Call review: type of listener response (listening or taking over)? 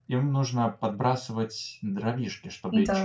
listening